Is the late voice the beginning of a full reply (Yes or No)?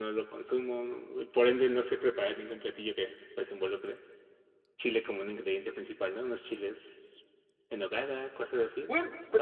Yes